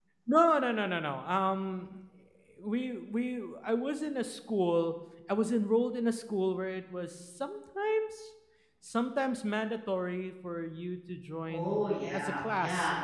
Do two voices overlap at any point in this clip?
Yes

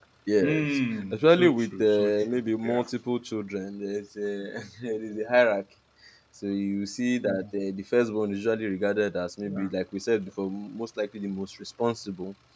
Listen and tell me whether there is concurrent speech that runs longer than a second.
Yes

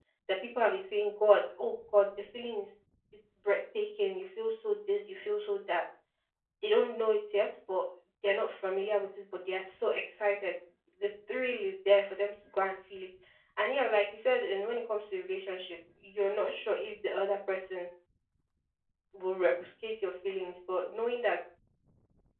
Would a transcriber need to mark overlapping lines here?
No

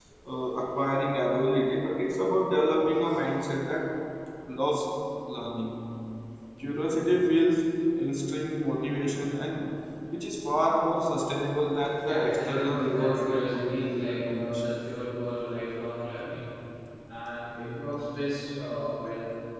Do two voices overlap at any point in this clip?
Yes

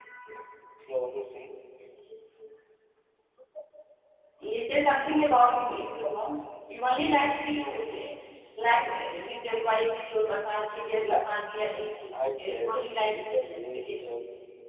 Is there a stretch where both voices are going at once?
Yes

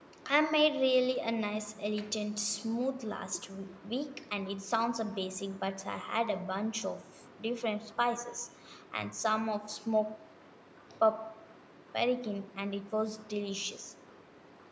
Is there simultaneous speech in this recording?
No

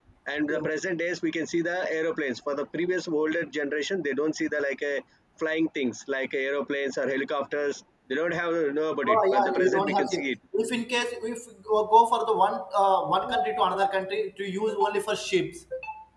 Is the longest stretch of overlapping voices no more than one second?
No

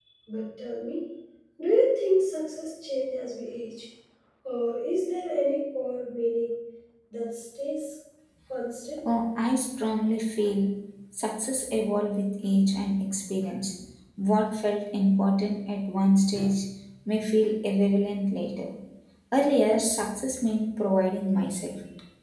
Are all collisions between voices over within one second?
Yes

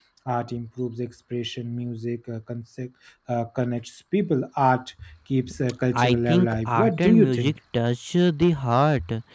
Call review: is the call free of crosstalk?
No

